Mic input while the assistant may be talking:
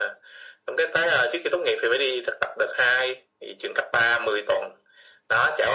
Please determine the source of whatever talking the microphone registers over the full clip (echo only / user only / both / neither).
echo only